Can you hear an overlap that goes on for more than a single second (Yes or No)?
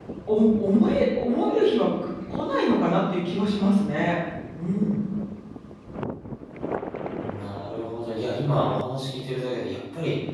No